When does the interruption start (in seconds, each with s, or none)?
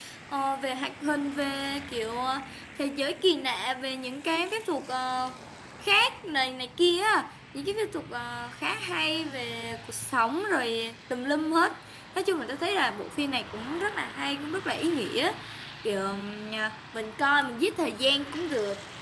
none